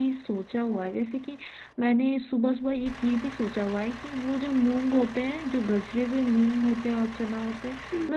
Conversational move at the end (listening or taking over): listening